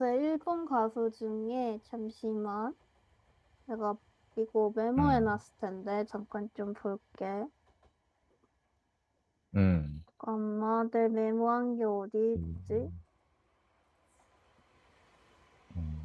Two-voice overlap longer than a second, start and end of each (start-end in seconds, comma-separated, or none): none